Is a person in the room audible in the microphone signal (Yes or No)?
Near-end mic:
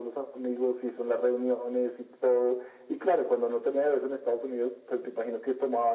No